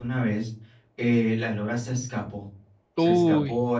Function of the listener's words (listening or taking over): listening